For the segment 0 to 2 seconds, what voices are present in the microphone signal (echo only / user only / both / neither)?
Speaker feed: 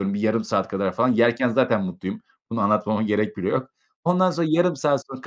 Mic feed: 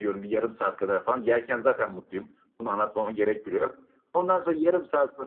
echo only